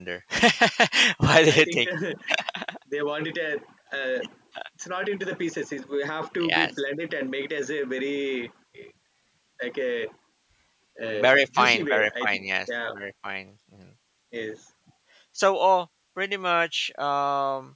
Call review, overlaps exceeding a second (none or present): present